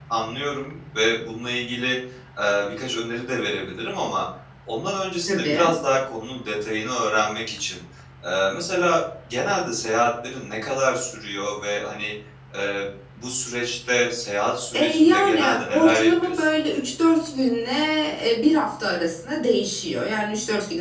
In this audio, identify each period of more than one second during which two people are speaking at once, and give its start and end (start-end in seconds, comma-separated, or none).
14.7-16.5